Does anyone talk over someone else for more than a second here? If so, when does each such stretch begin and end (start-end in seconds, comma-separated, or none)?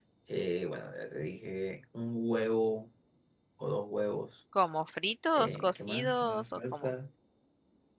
5.4-6.9